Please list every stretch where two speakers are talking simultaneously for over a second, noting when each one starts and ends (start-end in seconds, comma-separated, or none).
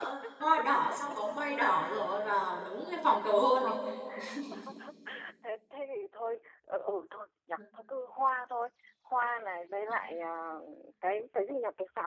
none